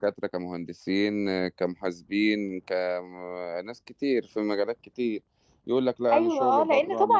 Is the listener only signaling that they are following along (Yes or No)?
No